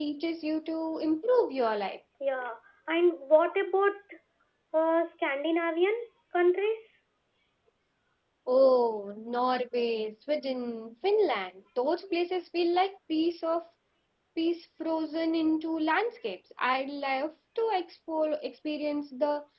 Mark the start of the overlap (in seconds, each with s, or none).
none